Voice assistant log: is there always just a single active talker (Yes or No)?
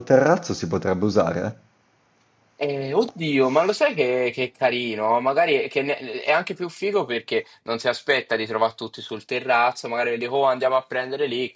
Yes